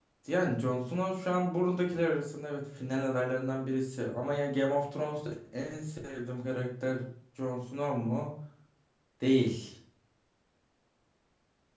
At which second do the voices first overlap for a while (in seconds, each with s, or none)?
none